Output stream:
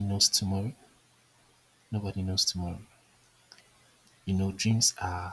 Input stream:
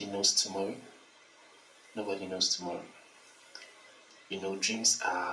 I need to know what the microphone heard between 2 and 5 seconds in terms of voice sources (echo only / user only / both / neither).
echo only